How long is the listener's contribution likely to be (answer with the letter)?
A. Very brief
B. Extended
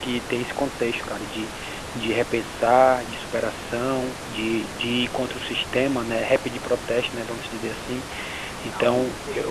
A